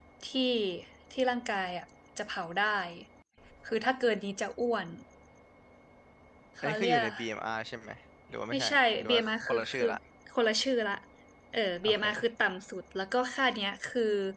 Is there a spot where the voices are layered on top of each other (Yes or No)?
Yes